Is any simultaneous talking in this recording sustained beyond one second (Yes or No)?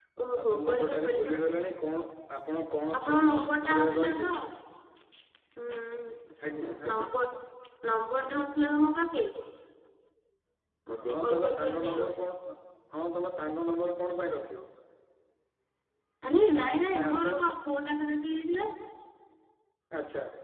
Yes